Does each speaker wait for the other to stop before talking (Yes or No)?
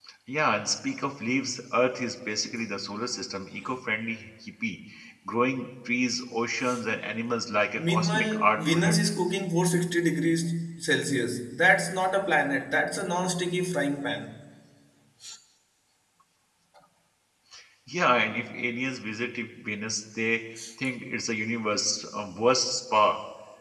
No